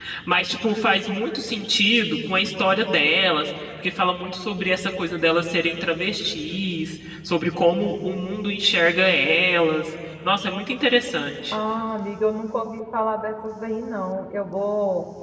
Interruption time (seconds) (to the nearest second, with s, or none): none